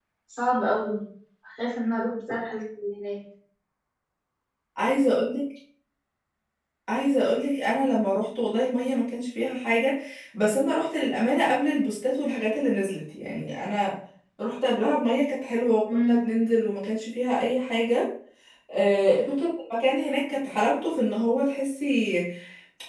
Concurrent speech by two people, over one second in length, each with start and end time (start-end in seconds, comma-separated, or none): none